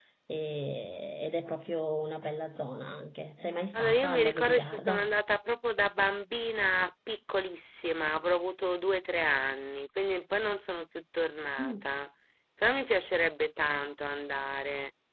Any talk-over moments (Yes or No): Yes